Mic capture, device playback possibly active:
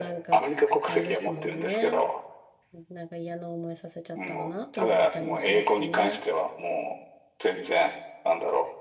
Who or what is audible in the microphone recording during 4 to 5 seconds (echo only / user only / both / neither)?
both